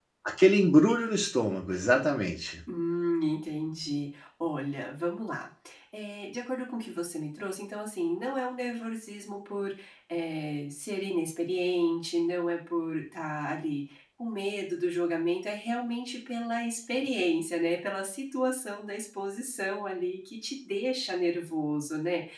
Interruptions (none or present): none